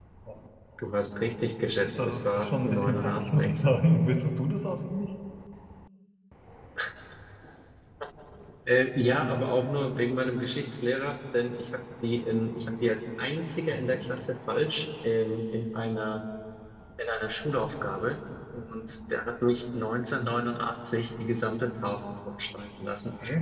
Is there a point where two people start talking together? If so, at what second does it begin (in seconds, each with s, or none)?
2.0 s